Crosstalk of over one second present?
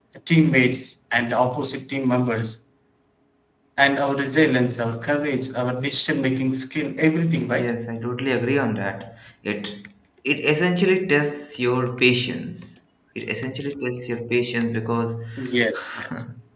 No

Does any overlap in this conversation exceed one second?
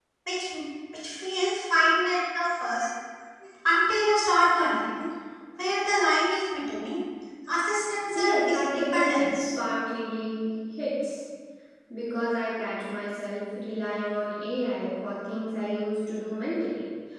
Yes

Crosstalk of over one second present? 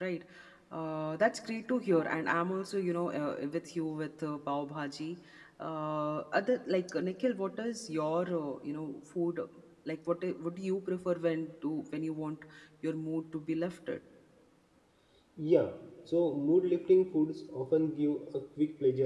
No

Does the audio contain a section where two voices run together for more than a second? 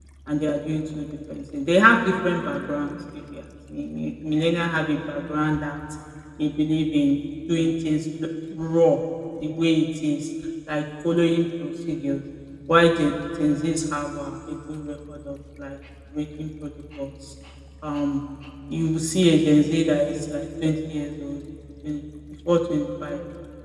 No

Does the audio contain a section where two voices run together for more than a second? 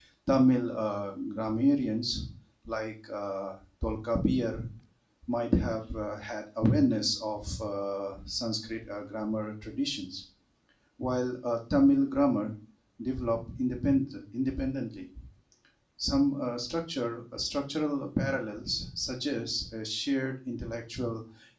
No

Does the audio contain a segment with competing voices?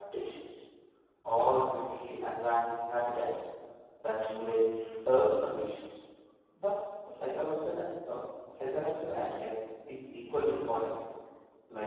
No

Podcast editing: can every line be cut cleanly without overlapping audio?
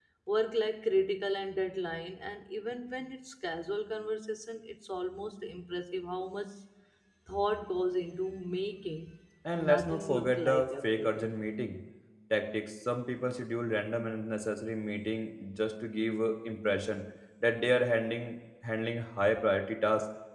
No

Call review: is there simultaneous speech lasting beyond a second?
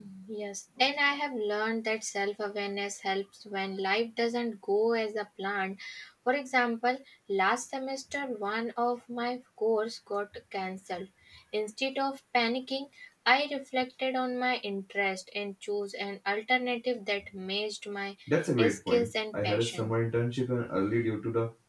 Yes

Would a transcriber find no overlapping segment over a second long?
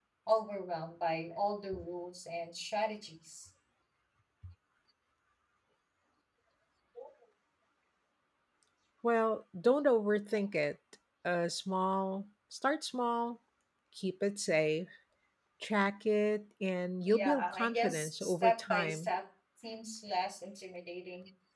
No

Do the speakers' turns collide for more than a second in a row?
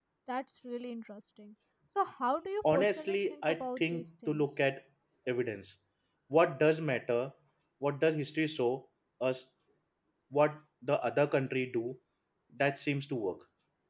Yes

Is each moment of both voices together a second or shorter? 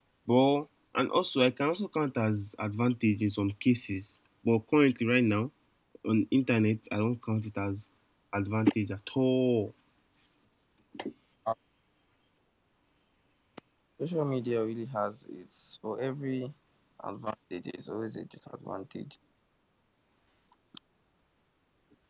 Yes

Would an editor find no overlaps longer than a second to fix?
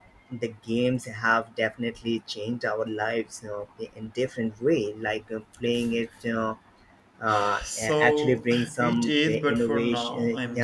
No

